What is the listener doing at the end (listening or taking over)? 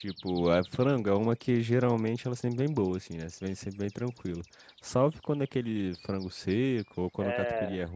taking over